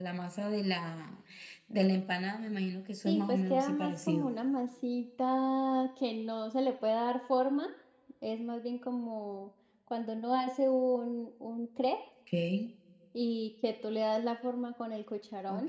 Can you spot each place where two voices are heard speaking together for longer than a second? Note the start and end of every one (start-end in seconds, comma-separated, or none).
3.1-4.3